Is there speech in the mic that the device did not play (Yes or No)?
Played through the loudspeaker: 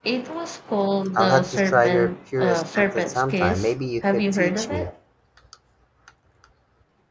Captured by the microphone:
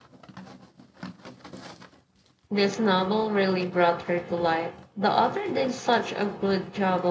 Yes